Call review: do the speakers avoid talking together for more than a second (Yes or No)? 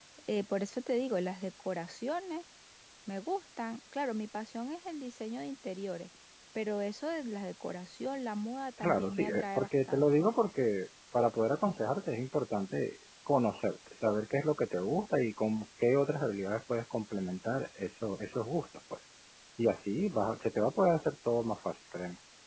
No